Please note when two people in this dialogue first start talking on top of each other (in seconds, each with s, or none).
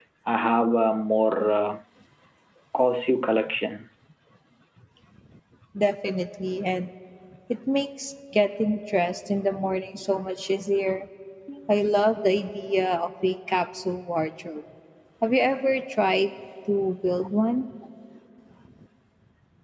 none